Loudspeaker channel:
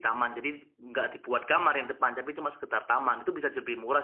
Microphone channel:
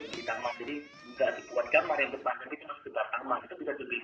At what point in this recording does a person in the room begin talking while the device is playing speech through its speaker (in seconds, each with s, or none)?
none